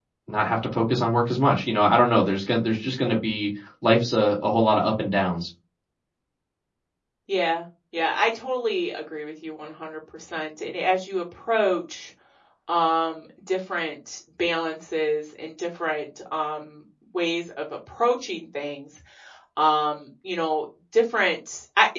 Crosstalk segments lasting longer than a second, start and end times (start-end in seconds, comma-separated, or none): none